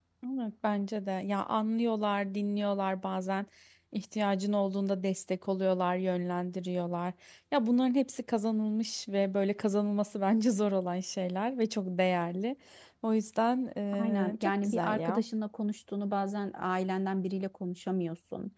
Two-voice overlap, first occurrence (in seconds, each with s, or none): 13.9 s